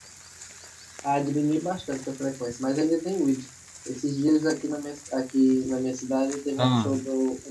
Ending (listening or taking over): listening